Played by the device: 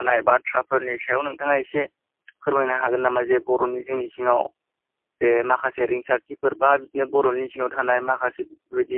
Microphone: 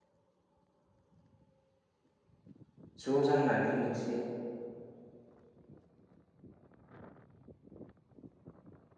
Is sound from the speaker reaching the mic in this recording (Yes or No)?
No